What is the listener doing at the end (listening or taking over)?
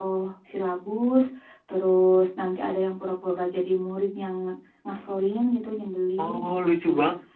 taking over